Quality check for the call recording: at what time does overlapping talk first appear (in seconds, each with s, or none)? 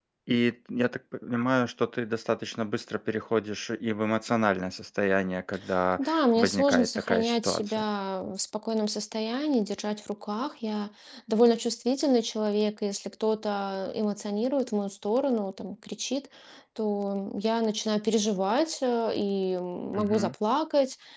6.0 s